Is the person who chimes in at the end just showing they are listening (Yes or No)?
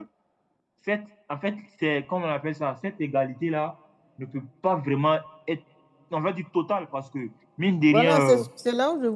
No